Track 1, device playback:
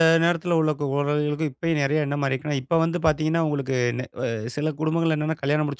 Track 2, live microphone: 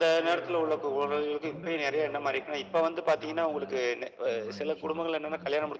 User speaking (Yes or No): Yes